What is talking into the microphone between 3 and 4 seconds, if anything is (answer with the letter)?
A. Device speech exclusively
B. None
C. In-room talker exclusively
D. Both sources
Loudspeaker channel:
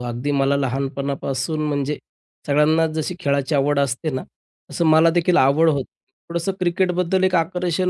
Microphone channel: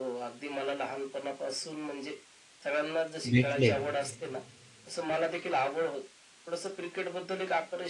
D